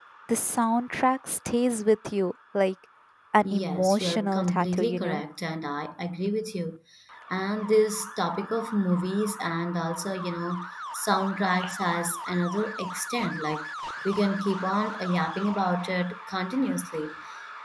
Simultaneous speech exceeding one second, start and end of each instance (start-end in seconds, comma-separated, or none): 3.6-5.2